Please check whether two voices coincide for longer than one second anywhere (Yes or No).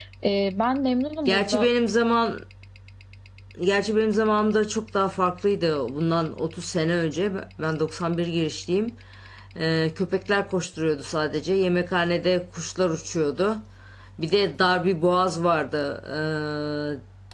No